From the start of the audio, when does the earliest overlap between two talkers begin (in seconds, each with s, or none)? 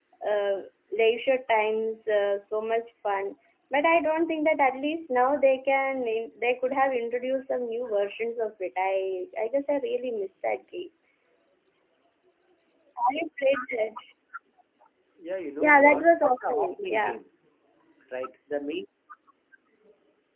15.6 s